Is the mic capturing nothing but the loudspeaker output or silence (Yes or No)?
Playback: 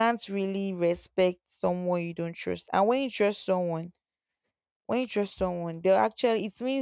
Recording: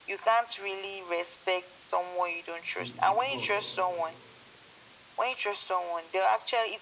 No